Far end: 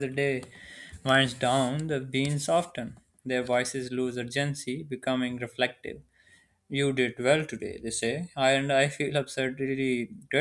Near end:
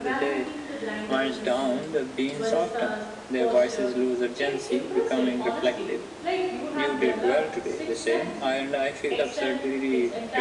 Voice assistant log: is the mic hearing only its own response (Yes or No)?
No